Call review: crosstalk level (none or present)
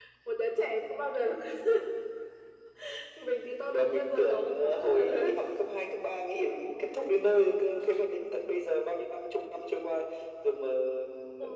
present